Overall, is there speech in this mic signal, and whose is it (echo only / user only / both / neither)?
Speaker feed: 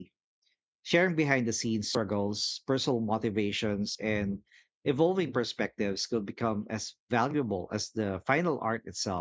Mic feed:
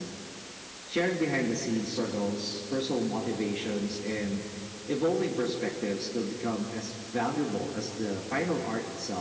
echo only